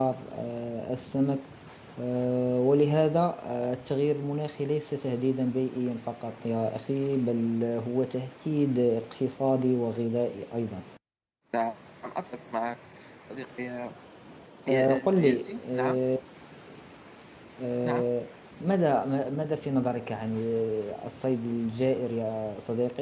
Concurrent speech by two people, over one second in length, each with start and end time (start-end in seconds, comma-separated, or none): 14.7-16.0